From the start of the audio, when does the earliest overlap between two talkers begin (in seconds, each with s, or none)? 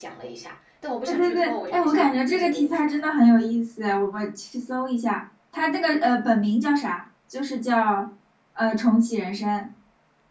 1.1 s